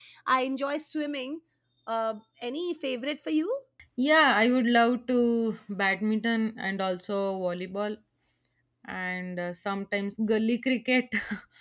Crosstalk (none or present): none